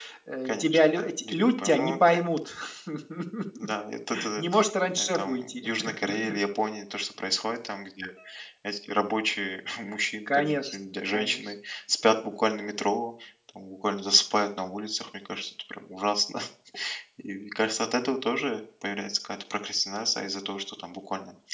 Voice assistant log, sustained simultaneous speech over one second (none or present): present